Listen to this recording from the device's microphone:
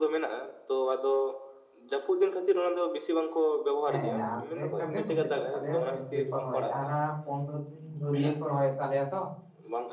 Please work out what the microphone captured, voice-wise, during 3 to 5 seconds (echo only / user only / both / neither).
both